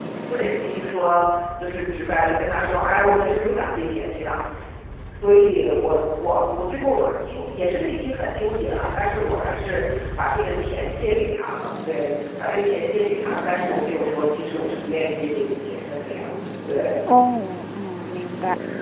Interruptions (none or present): none